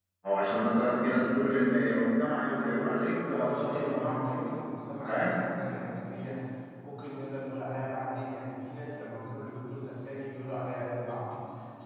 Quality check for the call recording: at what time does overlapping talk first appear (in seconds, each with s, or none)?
3.3 s